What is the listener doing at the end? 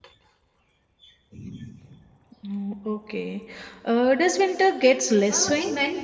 taking over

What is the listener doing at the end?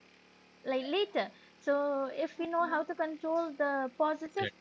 listening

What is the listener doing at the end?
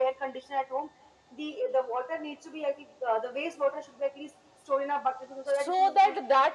taking over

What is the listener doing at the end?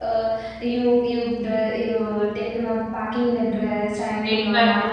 taking over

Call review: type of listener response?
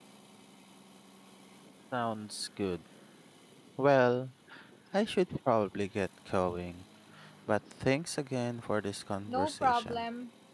taking over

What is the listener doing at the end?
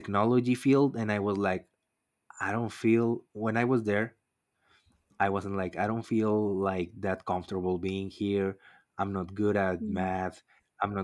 listening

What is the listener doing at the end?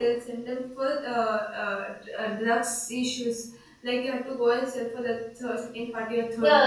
taking over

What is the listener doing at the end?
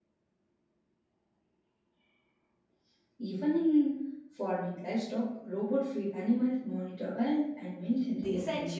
taking over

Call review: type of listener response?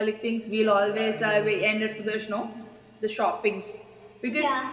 listening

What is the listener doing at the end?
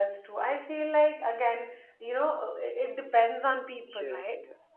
taking over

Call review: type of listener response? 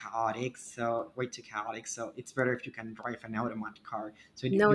listening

